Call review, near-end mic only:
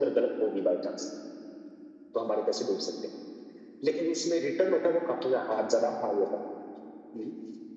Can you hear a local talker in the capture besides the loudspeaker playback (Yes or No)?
No